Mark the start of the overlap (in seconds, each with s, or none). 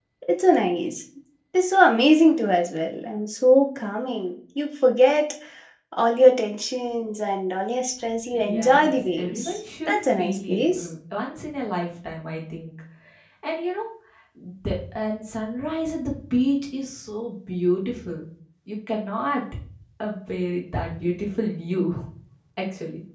8.3 s